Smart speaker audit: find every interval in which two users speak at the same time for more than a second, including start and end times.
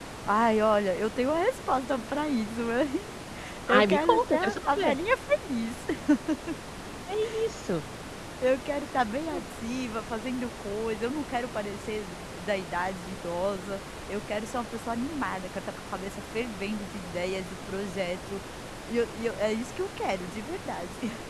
3.7-5.0

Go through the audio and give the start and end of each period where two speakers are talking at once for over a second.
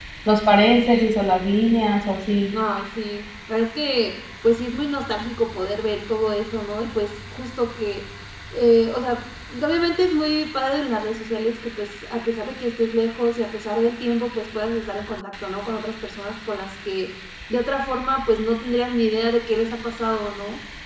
none

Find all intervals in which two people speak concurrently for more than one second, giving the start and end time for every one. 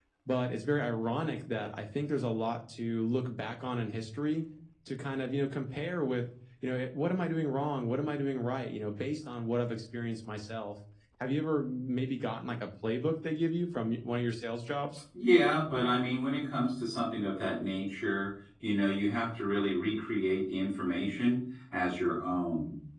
none

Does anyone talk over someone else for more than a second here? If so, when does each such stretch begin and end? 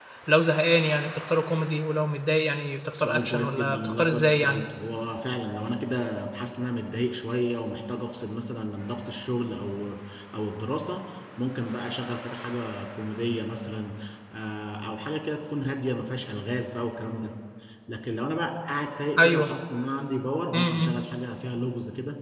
2.9-4.6

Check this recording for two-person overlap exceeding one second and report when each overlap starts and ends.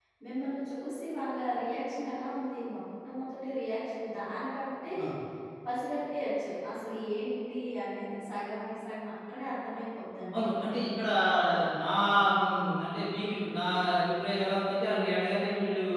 none

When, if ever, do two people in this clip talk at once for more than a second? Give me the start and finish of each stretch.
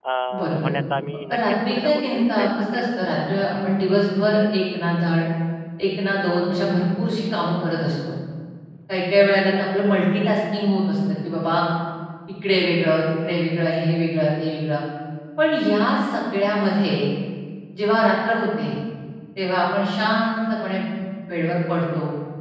1.3-3.0

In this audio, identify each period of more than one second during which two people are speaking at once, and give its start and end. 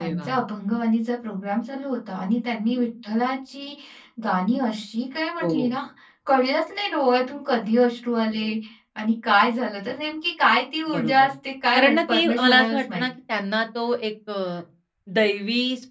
11.7-13.0

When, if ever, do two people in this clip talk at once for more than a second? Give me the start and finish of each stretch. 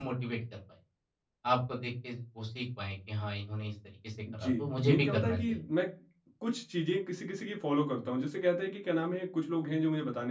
4.3-5.6

